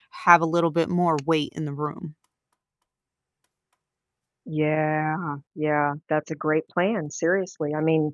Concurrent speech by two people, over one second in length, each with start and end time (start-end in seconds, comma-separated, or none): none